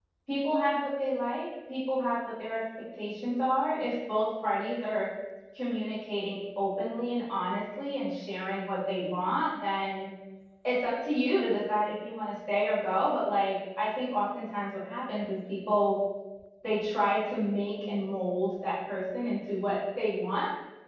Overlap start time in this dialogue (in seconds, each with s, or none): none